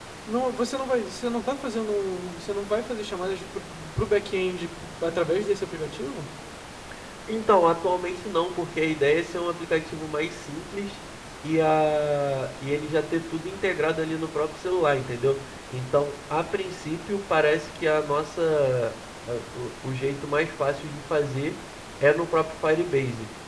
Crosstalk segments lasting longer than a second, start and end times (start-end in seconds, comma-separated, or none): none